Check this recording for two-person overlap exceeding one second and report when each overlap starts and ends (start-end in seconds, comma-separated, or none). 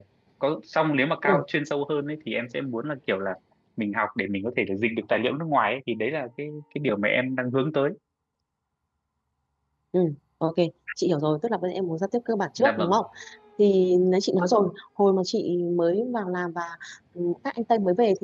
none